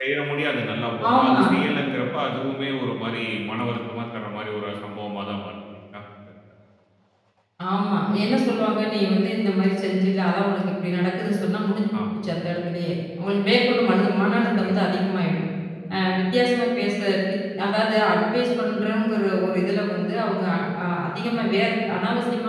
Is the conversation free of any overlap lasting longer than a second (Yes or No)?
Yes